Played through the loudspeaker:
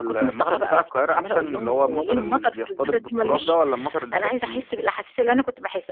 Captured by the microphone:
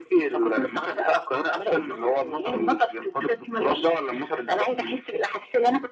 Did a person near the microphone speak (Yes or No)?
No